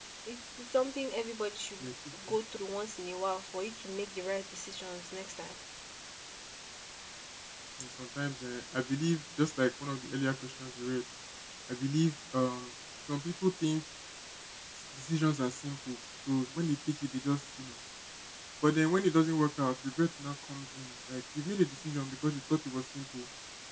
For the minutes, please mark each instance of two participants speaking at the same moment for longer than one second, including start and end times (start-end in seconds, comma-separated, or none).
none